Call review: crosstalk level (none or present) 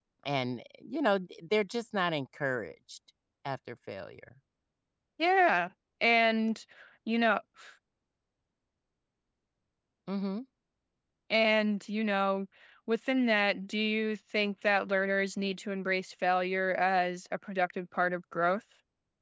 none